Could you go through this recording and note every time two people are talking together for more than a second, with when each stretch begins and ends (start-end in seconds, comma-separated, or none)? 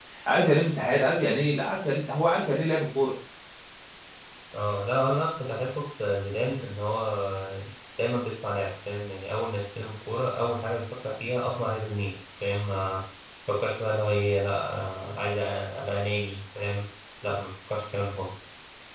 none